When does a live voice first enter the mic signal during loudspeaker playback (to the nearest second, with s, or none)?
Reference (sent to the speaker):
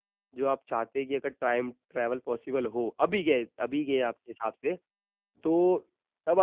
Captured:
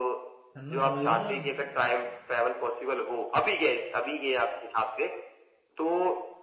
1 s